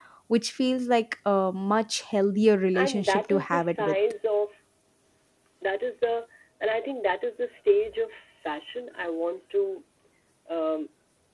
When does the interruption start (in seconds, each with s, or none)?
2.7 s